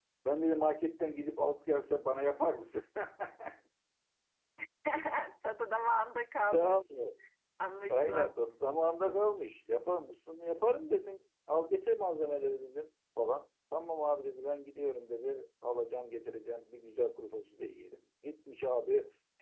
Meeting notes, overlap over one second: none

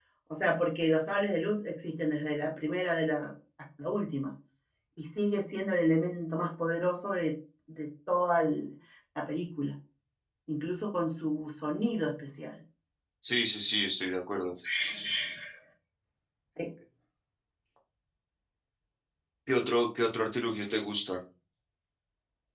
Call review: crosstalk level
none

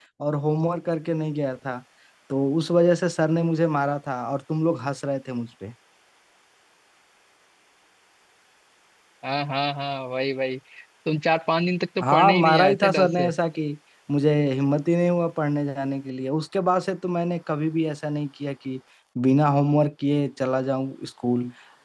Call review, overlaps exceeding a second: present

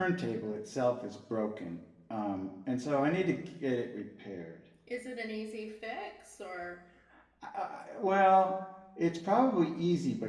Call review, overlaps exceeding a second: none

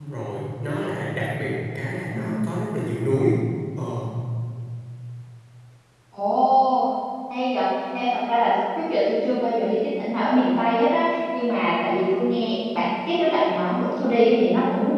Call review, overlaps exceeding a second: none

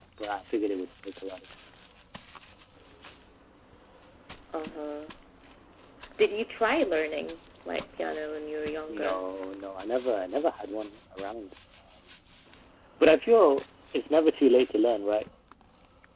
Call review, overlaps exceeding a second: none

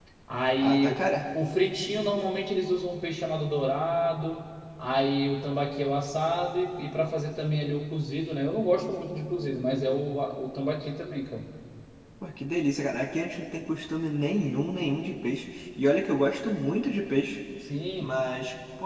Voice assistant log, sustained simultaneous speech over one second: none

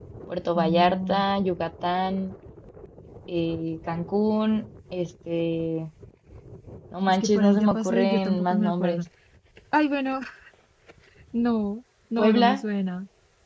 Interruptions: present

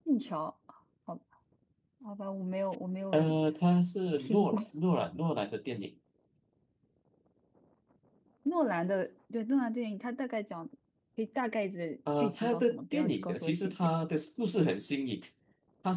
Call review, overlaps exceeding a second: present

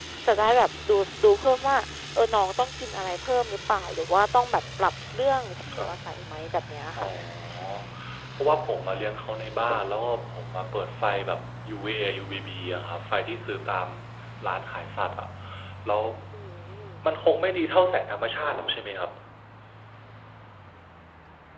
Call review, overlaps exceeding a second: none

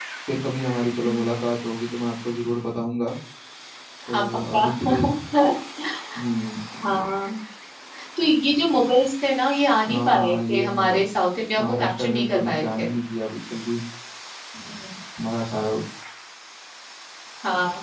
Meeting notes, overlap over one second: present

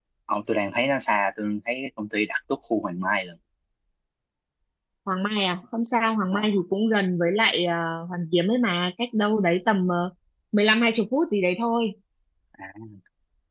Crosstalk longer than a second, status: none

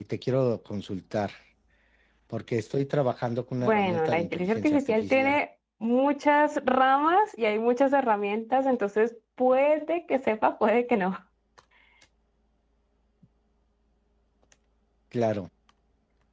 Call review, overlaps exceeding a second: present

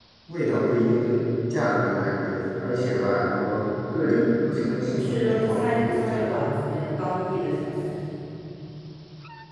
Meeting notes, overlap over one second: present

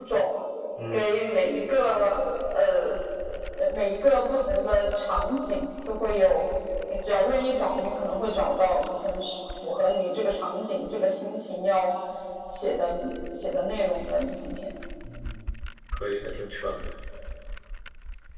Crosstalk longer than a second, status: none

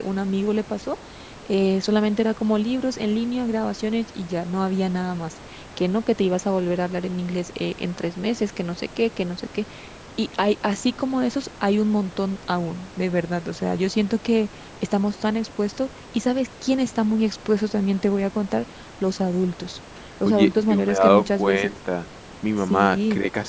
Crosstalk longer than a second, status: present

